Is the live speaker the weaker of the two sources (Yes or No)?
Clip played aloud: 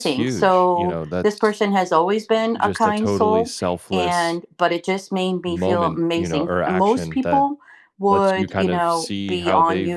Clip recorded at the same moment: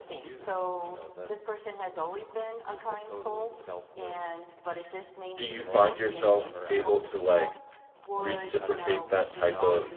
No